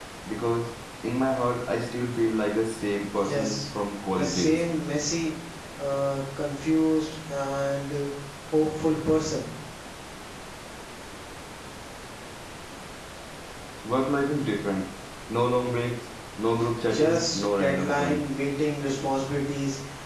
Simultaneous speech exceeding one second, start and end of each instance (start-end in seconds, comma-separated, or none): 16.9-18.2